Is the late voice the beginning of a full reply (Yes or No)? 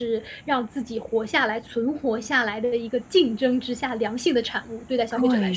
Yes